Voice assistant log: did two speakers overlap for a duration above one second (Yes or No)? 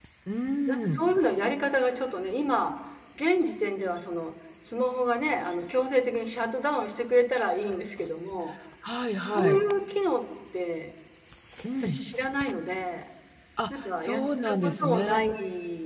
Yes